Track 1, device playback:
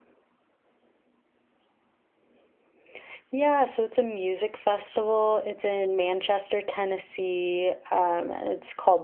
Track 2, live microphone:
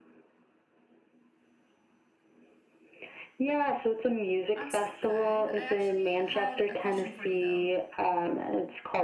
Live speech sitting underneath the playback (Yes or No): Yes